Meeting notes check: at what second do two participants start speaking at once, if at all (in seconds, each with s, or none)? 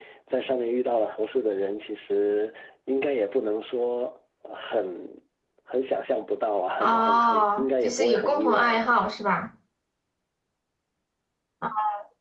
6.8 s